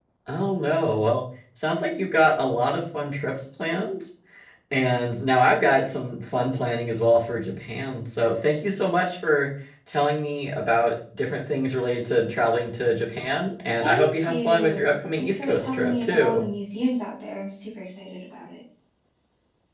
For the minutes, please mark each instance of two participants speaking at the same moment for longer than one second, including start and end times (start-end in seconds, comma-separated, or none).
13.8-16.4